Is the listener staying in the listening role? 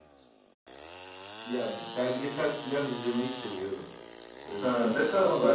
No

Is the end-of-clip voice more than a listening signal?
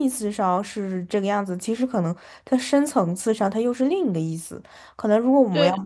No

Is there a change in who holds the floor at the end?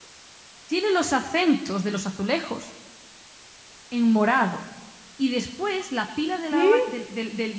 No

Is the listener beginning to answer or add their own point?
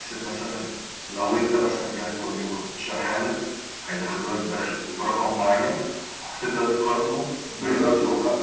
Yes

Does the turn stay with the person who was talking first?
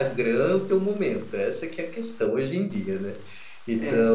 Yes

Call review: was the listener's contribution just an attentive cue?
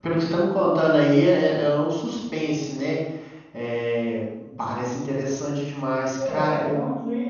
No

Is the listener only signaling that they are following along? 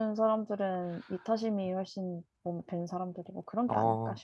No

